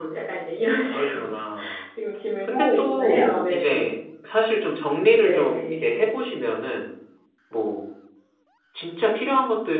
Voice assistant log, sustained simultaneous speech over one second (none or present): present